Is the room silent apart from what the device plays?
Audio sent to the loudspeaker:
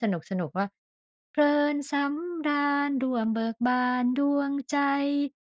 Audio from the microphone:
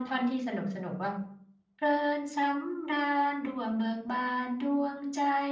Yes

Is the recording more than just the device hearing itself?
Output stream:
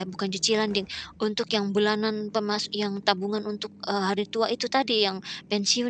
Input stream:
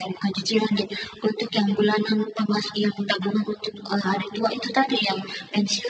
No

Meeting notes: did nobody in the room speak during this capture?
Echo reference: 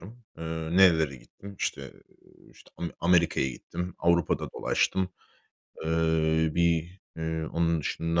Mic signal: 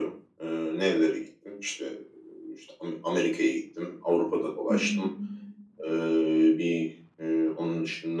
No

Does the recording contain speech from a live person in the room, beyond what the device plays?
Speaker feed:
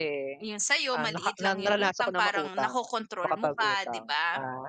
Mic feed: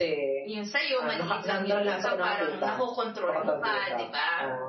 No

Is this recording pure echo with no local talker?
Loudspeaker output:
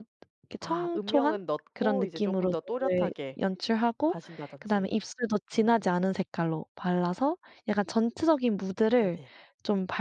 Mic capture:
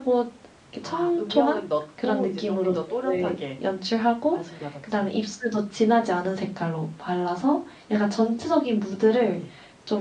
Yes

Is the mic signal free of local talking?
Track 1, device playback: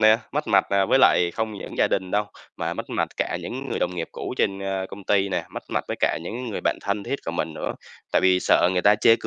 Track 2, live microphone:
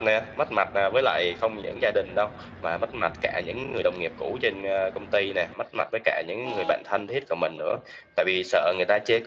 Yes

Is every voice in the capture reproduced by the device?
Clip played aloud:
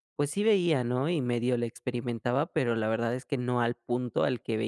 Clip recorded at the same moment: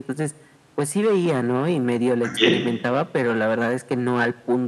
No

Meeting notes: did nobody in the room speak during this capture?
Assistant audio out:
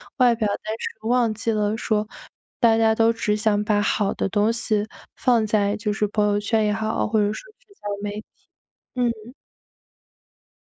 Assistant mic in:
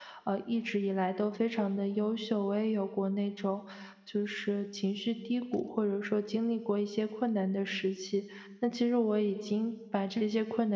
No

